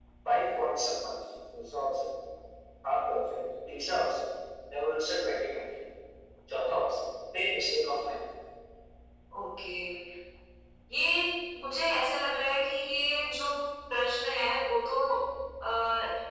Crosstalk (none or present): none